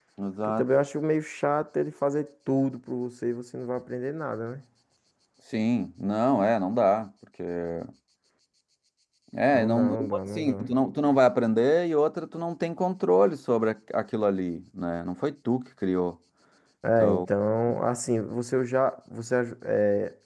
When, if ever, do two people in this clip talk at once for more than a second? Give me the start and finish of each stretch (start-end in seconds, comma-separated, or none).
9.5-10.7